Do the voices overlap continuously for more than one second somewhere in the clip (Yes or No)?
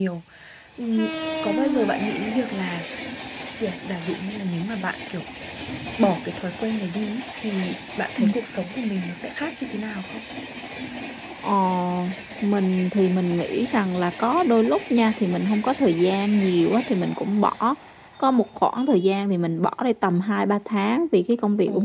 No